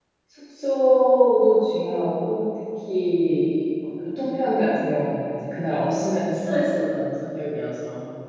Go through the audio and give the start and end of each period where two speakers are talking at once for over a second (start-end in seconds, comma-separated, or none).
none